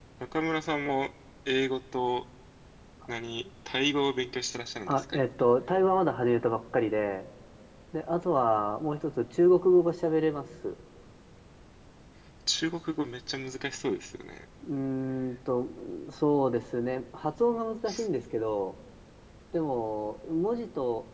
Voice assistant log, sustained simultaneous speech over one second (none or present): none